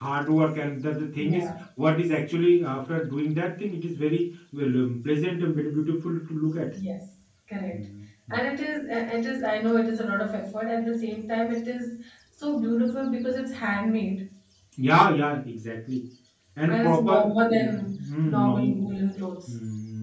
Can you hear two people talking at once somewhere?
Yes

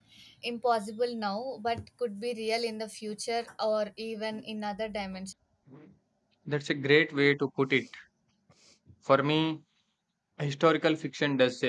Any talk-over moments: No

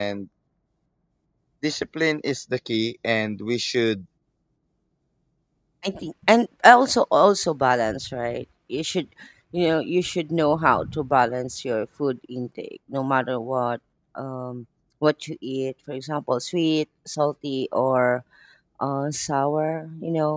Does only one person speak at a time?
Yes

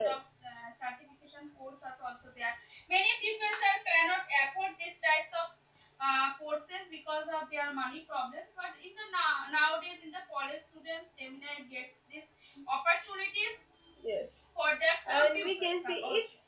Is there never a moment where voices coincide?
No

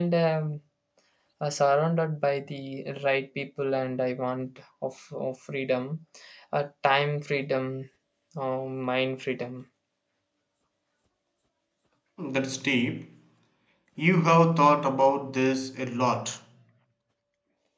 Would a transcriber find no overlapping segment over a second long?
Yes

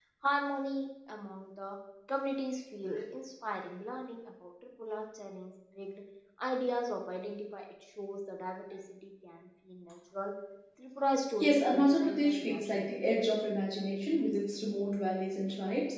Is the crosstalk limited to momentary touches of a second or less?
No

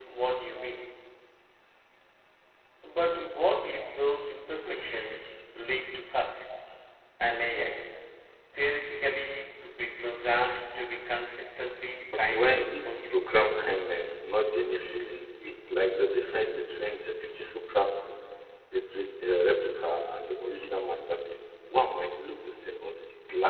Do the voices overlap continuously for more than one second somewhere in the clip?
Yes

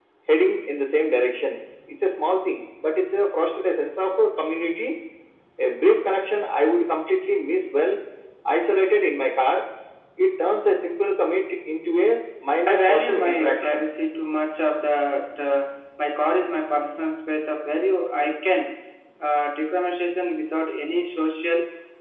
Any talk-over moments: Yes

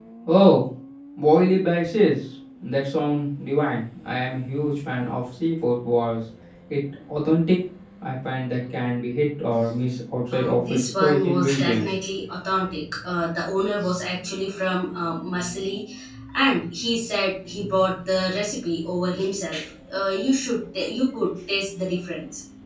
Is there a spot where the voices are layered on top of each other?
Yes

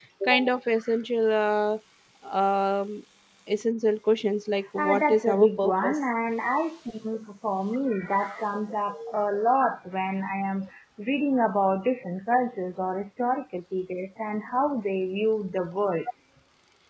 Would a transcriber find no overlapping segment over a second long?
No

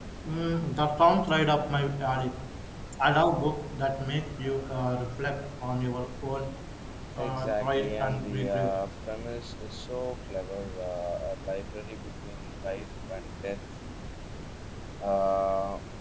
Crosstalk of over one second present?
Yes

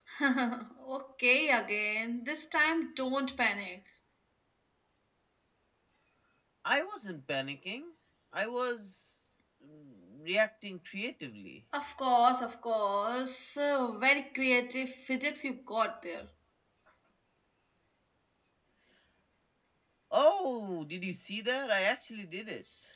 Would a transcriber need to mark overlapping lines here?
No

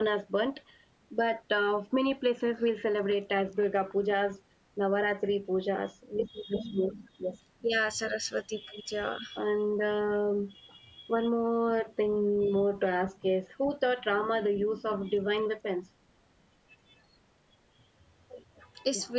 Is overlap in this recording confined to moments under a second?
Yes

